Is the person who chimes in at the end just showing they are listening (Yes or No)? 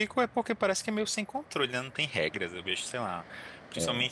Yes